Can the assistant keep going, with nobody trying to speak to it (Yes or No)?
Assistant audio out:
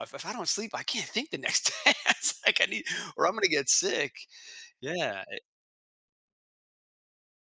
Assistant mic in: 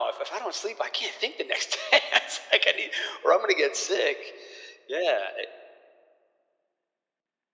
Yes